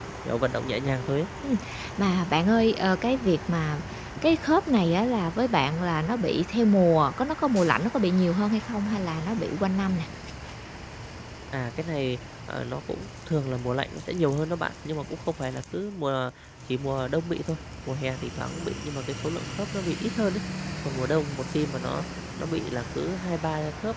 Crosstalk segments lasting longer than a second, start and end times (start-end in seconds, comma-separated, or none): none